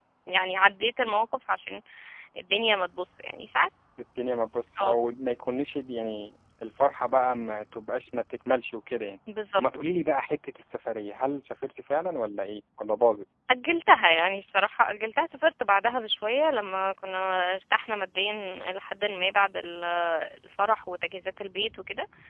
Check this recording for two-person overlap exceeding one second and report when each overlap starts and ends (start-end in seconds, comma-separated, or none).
none